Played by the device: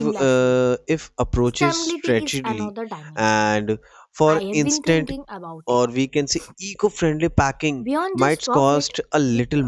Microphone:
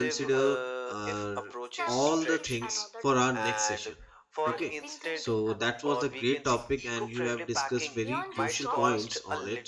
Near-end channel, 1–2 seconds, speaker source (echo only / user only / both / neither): both